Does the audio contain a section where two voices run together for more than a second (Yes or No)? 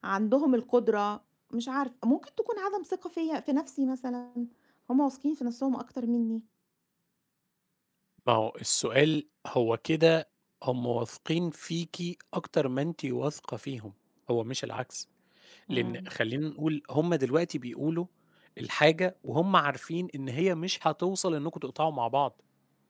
No